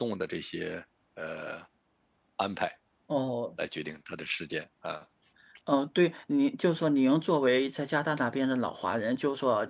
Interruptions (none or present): none